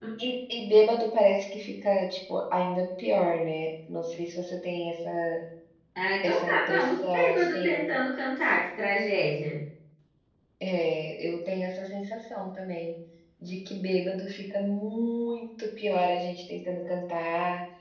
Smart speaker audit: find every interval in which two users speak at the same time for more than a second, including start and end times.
6.2-7.7

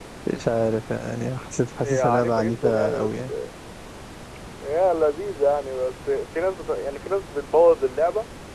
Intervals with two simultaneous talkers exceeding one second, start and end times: 1.8-3.3

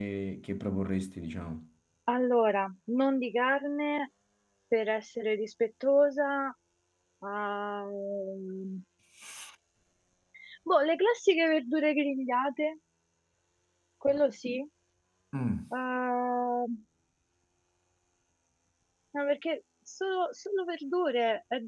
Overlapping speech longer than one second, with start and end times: none

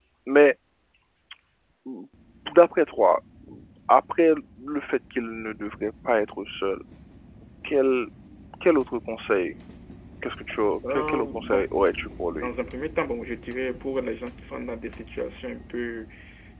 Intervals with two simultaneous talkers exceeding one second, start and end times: 10.9-12.5

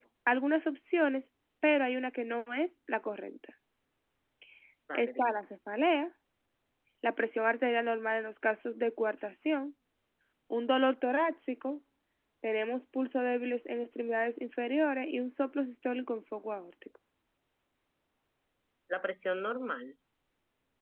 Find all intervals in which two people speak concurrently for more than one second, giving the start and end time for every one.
none

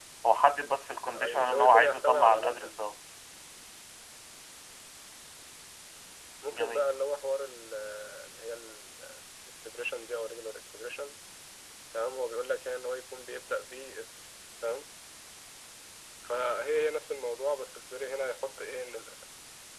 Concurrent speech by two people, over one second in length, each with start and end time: 1.1-2.7

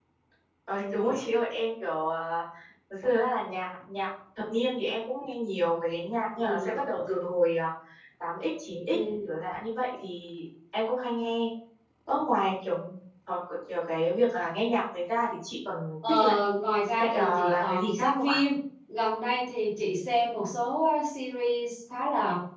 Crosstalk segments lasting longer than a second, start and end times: 17.0-18.4

